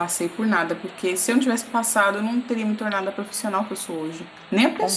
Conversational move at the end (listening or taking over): taking over